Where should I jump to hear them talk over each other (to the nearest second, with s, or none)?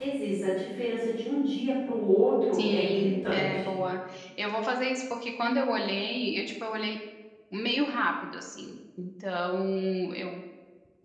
3 s